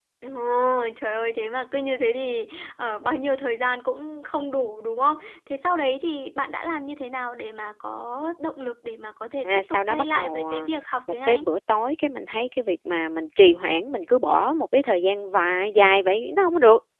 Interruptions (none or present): present